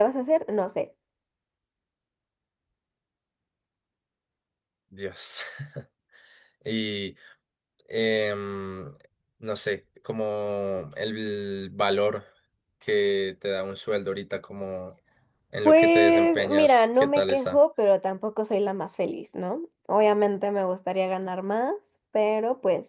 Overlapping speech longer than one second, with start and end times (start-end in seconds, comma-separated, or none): 15.6-17.6